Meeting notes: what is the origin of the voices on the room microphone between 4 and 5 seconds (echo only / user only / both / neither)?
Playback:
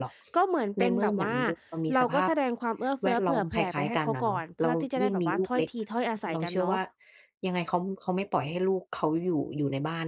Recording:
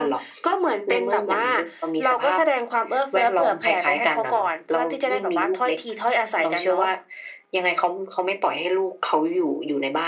echo only